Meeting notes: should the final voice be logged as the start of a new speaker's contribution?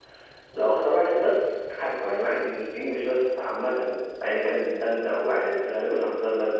No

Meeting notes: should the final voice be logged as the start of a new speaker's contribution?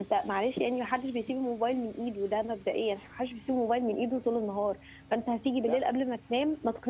No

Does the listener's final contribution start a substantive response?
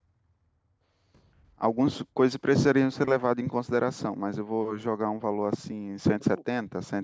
Yes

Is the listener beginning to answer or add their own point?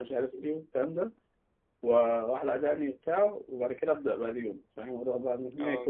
Yes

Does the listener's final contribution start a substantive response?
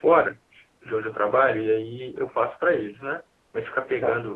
No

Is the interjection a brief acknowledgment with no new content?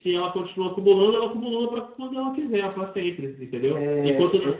No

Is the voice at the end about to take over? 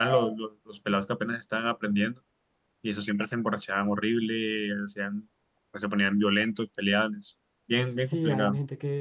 Yes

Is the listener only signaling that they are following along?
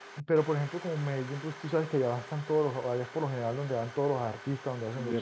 No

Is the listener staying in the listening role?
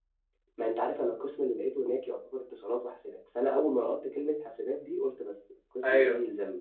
No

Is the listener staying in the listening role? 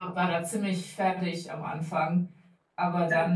Yes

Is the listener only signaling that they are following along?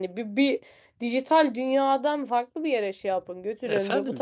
No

